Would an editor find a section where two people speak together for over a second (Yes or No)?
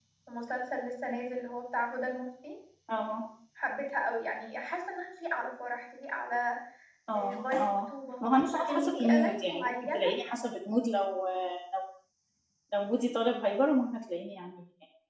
Yes